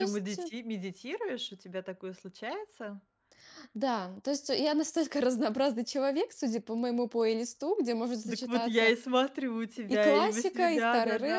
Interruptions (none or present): present